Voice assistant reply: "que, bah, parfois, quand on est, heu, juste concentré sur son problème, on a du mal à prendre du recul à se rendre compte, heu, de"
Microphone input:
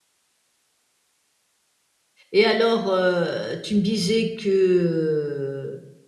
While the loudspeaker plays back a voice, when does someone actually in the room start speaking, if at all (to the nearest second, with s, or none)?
2 s